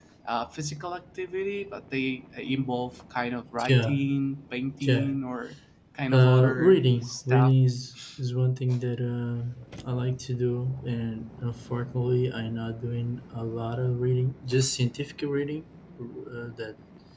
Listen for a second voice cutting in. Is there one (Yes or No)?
Yes